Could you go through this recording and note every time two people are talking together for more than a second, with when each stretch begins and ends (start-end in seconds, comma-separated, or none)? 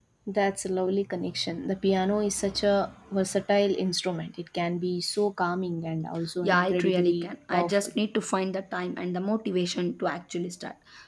6.4-7.9